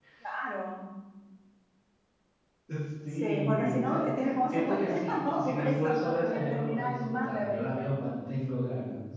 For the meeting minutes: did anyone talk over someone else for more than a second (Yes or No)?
Yes